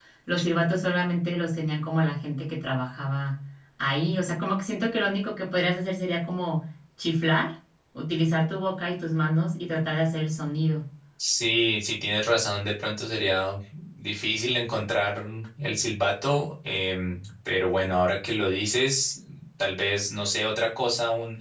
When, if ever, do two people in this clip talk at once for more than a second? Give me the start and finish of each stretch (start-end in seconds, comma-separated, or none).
none